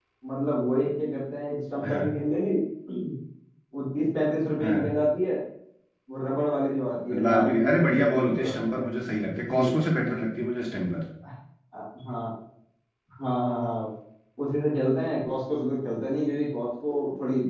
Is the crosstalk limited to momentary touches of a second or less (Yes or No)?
No